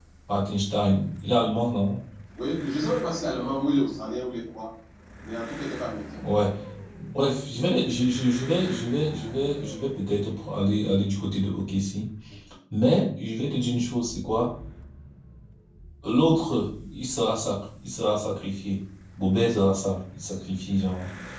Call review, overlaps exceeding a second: none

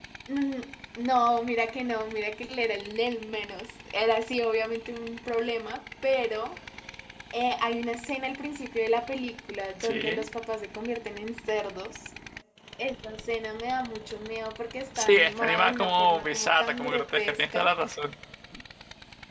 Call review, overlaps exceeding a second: present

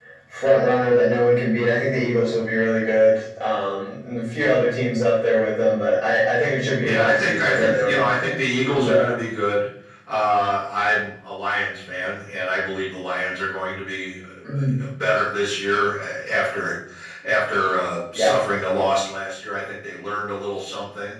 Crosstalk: present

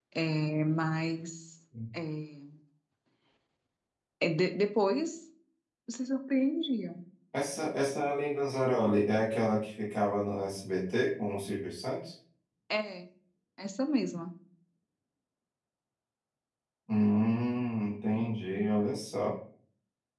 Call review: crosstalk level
none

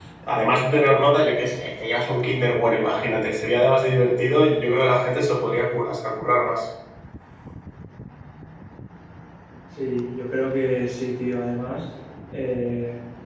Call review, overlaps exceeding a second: none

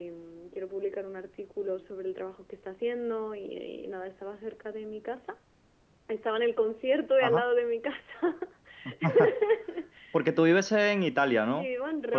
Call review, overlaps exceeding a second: none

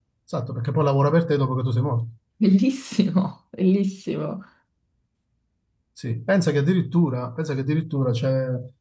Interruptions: none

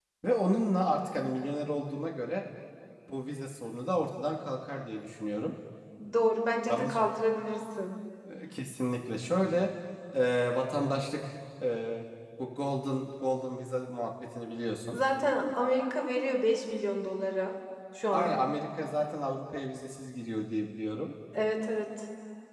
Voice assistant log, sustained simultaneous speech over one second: none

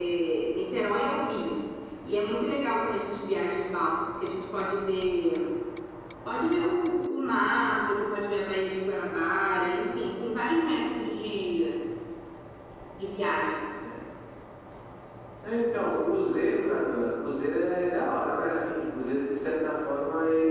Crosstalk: none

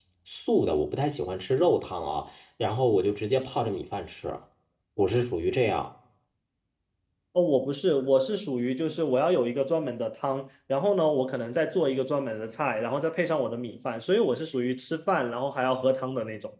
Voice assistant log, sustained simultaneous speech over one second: none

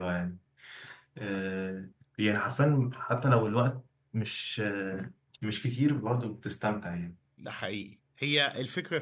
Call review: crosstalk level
none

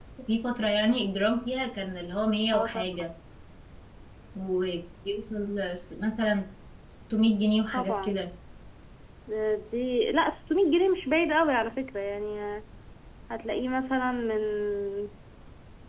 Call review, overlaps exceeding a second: none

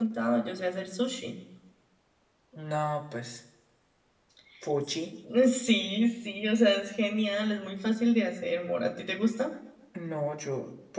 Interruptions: none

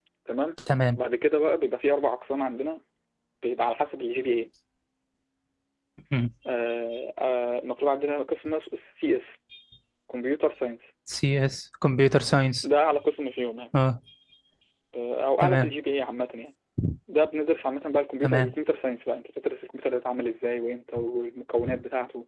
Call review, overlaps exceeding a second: none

